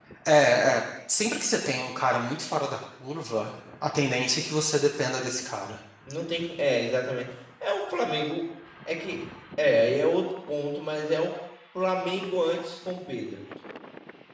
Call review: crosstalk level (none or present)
none